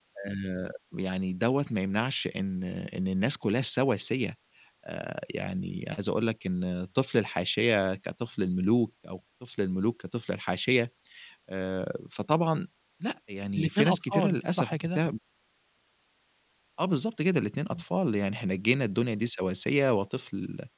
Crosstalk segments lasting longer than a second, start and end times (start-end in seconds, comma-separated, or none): 13.6-15.0